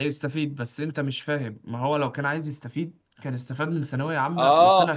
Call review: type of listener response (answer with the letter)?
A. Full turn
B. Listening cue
A